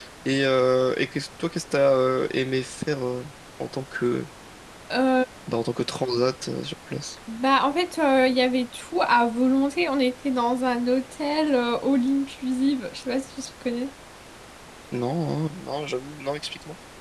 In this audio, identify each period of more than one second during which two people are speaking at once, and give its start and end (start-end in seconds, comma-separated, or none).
none